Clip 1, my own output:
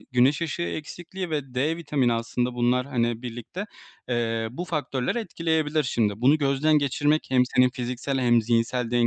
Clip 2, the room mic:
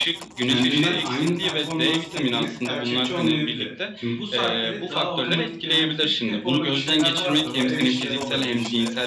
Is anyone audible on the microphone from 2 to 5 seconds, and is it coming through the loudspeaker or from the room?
both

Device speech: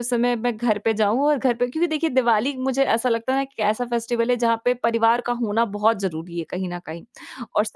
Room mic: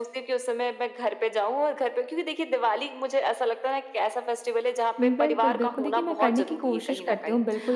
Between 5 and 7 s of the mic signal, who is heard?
both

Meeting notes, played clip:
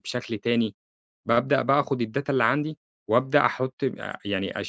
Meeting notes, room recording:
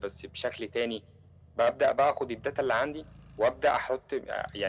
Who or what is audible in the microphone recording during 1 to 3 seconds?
echo only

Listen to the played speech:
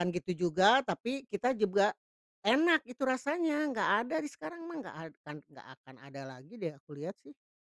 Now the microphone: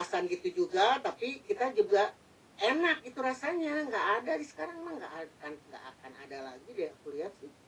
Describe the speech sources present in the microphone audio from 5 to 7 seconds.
echo only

